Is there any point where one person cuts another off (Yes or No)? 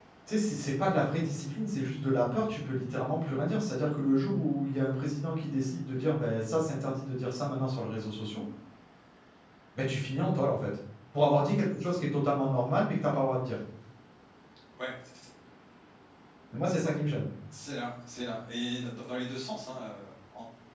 No